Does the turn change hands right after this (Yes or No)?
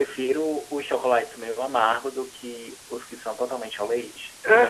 Yes